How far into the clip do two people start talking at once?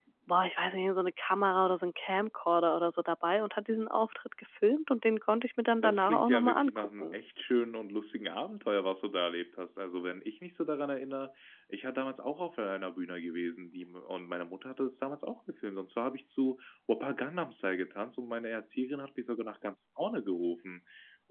5.8 s

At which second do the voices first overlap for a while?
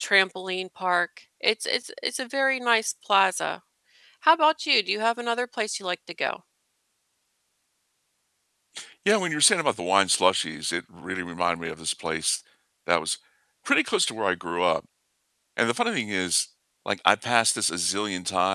none

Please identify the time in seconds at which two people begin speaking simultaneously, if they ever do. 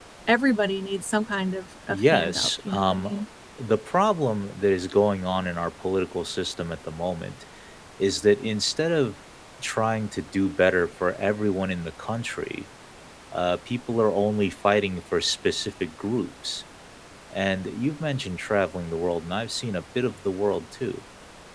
1.9 s

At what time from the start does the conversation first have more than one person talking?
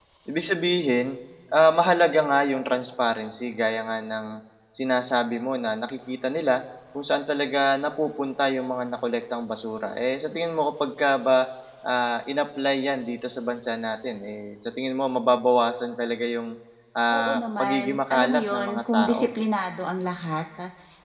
17.1 s

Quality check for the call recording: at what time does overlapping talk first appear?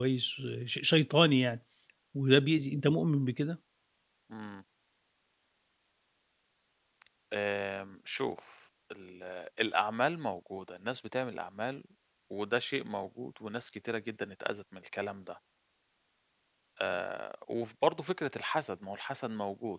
none

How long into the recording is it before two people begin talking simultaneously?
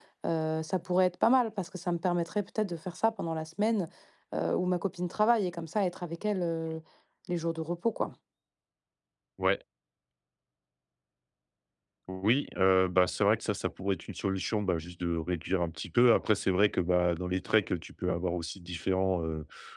none

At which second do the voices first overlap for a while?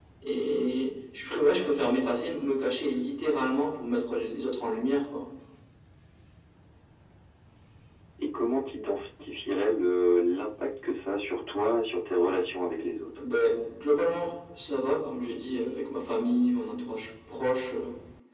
none

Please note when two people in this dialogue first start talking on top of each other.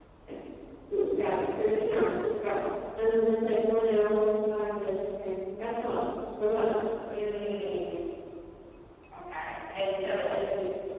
none

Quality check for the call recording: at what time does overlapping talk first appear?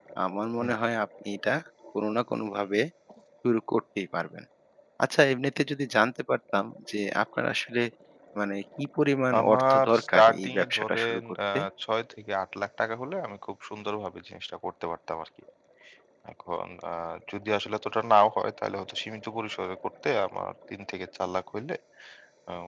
9.3 s

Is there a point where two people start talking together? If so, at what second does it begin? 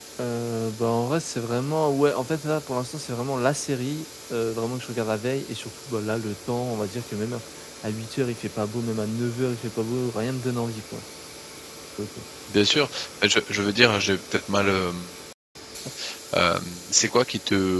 none

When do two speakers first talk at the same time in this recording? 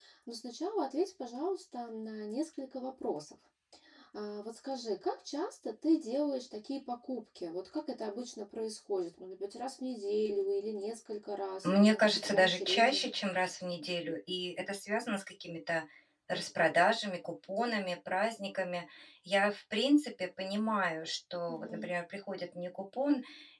11.6 s

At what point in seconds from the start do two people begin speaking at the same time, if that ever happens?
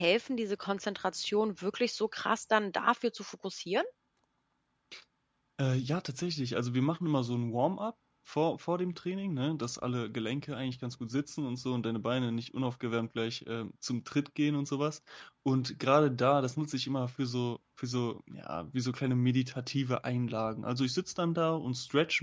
none

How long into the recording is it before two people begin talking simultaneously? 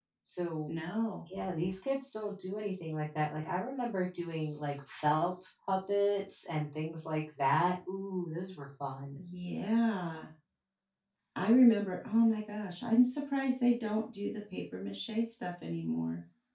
none

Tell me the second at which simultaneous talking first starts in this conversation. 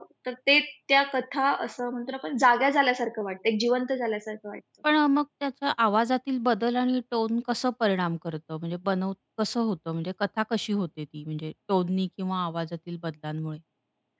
none

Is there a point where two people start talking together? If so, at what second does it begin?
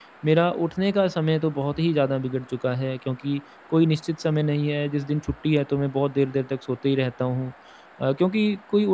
none

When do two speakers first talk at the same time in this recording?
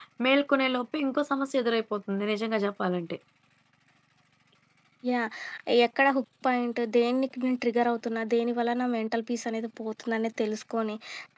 none

